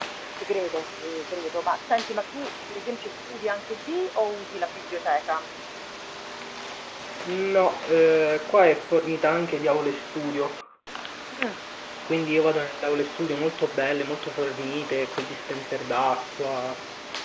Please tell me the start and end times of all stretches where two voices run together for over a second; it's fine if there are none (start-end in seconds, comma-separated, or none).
none